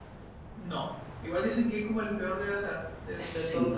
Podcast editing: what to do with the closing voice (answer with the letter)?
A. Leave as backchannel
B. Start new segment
B